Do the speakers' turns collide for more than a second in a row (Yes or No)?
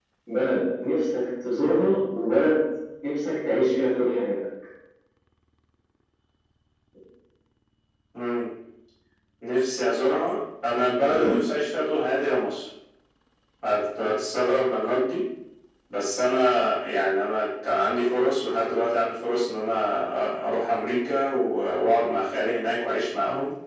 No